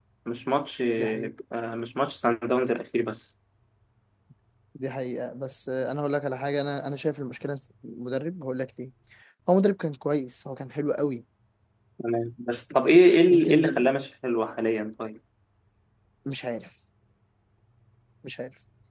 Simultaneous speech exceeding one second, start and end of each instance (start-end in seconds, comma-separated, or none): none